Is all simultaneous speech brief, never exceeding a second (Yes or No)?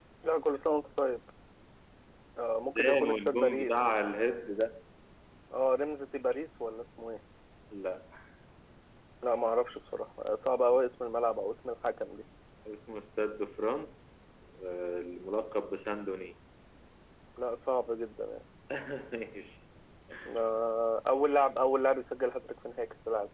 No